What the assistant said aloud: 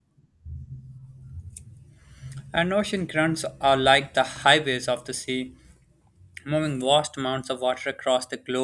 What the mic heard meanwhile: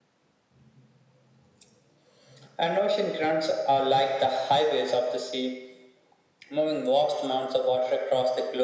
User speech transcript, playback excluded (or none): none